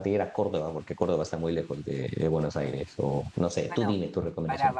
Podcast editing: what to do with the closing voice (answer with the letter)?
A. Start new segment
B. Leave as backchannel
A